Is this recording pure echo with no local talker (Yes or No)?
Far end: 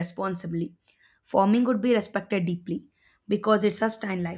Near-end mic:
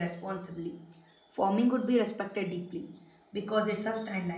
Yes